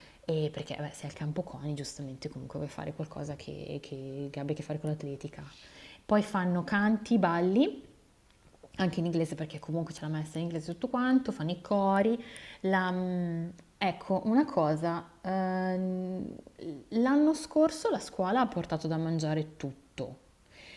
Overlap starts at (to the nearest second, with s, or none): none